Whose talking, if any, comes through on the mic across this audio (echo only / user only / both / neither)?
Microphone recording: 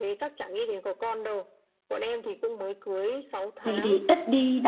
both